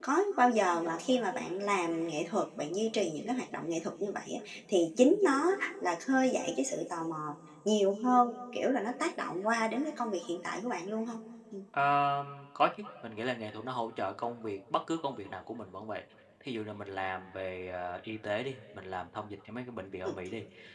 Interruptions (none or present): none